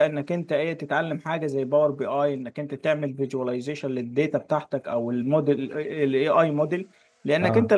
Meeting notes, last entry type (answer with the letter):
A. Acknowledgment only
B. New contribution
A